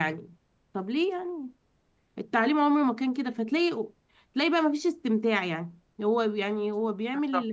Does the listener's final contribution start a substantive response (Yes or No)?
No